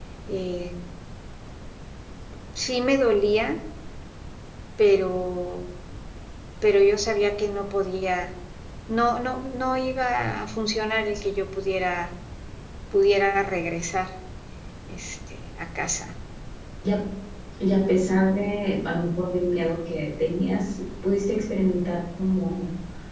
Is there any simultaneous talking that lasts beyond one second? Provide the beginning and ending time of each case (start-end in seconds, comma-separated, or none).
none